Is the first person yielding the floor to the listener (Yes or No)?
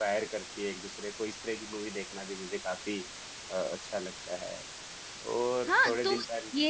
Yes